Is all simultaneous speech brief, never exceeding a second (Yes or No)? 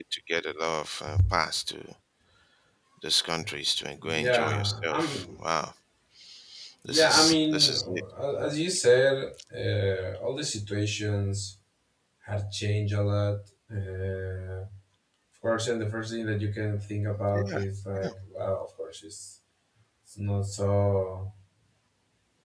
No